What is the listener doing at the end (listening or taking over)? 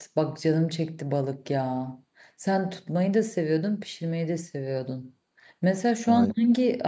listening